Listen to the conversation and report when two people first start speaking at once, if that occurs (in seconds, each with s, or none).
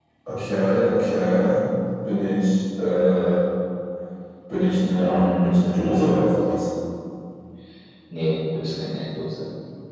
4.6 s